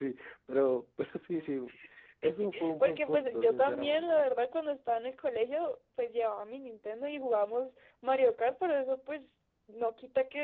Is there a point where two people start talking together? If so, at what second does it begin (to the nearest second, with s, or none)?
2 s